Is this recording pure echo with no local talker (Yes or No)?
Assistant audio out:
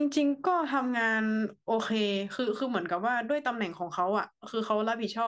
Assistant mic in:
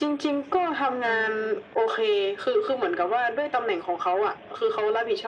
No